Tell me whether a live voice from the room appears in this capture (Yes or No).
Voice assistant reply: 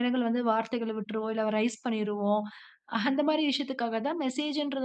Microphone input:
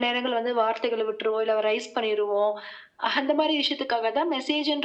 No